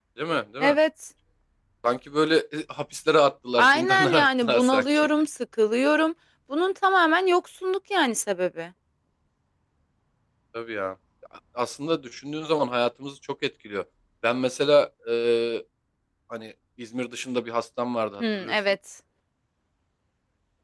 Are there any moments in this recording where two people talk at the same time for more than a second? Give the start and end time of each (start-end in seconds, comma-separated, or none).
3.6-5.1